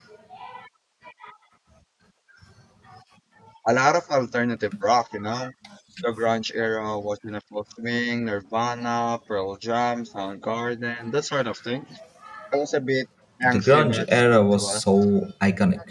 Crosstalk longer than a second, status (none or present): present